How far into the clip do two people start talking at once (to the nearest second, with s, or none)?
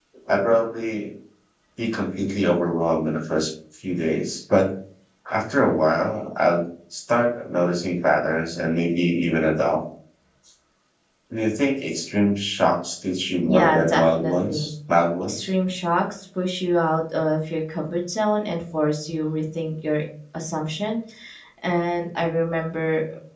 13 s